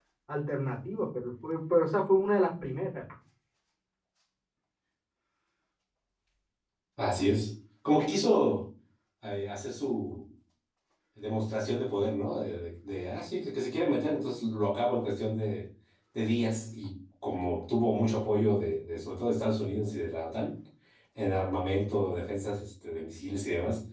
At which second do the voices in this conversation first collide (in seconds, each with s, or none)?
none